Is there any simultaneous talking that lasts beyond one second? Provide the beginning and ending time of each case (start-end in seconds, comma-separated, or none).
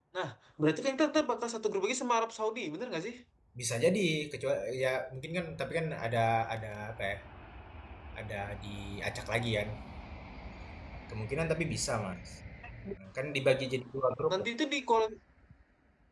none